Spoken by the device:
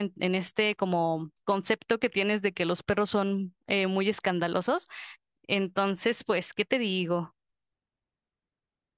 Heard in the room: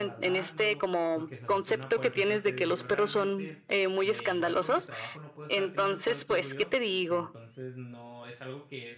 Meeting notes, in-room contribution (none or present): present